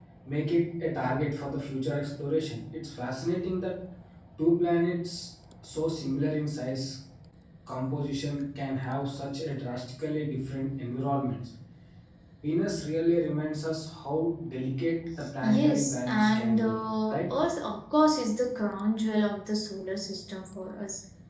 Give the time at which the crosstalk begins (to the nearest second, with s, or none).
15 s